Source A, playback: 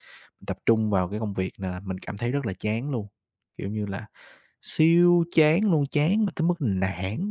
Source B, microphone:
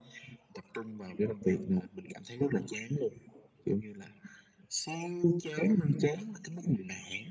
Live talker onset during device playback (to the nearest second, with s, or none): none